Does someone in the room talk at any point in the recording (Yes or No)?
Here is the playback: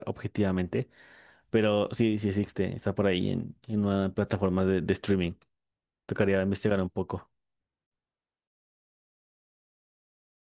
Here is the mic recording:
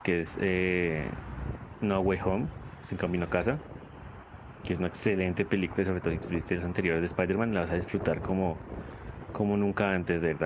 Yes